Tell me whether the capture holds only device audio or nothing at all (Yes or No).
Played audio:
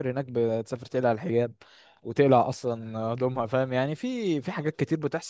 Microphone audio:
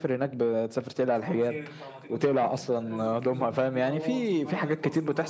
No